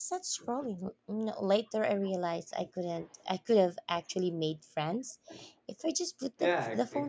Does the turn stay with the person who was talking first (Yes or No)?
No